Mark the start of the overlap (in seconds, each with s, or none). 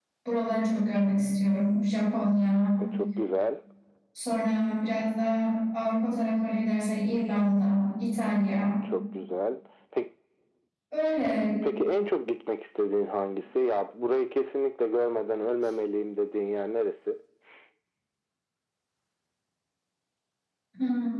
none